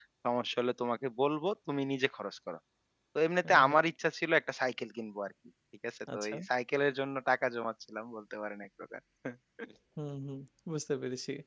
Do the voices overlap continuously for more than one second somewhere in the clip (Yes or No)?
No